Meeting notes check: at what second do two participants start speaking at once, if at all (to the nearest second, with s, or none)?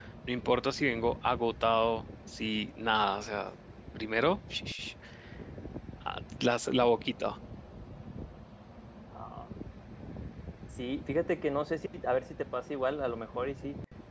none